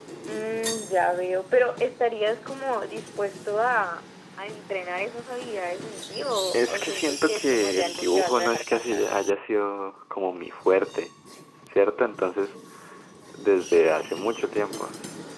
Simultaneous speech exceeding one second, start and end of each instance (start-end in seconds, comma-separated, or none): 6.5-9.0